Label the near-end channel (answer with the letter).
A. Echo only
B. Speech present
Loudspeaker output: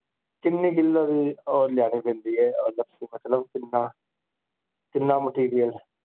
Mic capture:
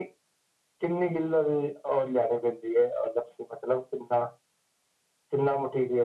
A